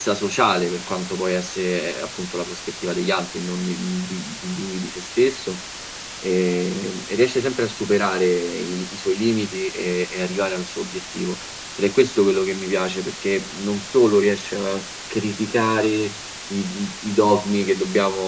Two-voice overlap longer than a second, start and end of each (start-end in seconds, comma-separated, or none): none